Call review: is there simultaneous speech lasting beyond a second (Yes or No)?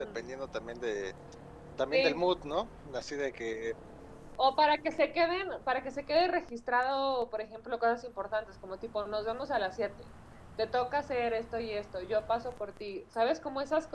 No